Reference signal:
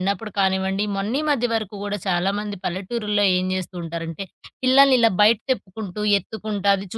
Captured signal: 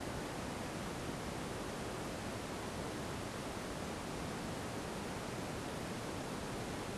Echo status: none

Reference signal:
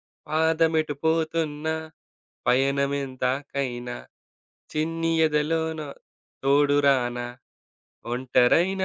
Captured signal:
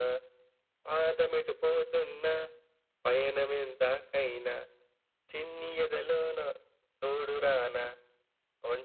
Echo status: present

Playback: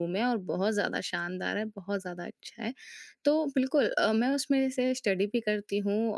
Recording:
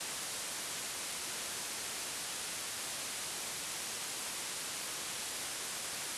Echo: none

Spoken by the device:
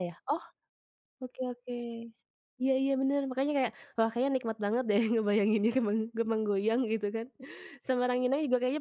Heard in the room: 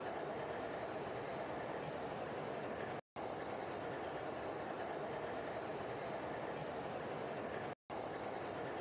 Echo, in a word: none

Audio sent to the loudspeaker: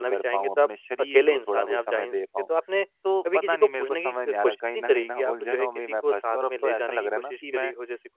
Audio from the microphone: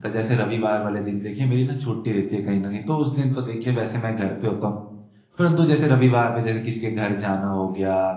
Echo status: none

